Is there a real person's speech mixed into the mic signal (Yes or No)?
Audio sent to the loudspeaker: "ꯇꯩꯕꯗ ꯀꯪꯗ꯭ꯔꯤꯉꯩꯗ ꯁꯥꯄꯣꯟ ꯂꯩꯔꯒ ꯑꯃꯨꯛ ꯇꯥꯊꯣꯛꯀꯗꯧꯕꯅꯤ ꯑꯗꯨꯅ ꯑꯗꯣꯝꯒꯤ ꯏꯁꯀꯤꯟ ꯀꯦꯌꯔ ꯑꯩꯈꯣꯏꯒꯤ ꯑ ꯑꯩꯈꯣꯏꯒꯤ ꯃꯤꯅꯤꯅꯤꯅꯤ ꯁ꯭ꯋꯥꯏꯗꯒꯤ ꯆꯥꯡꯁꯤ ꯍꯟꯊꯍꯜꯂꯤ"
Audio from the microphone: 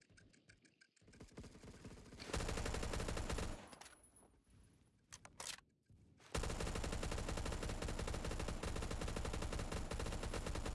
No